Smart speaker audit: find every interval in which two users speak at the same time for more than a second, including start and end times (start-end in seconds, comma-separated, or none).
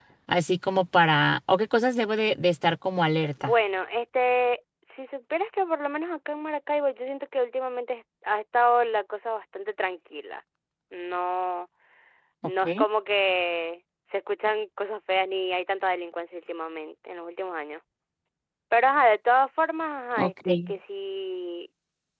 none